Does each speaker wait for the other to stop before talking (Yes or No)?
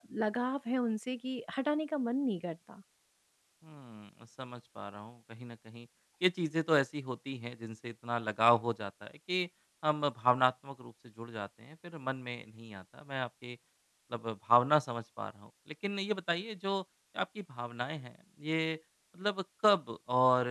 Yes